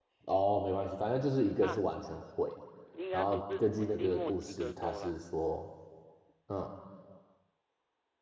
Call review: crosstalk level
present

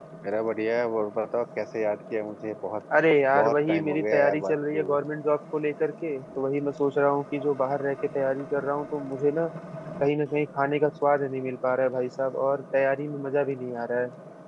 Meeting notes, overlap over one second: present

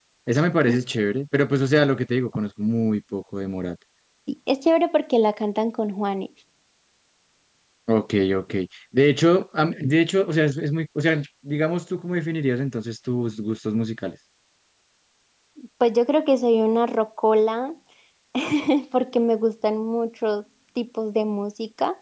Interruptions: none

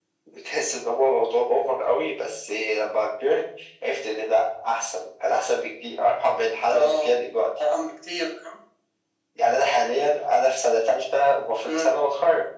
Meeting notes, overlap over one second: none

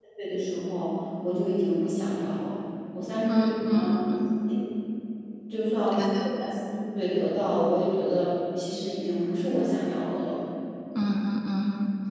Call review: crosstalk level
present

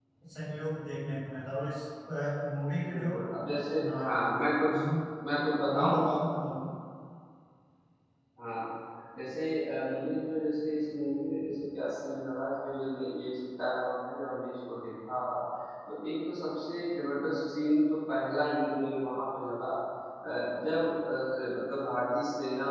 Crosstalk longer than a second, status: none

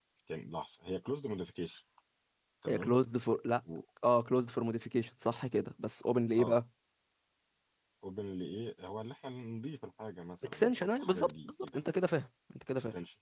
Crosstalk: present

